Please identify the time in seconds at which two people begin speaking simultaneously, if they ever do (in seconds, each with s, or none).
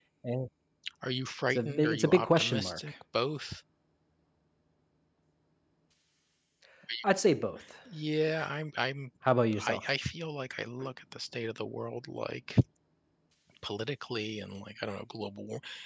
1.5 s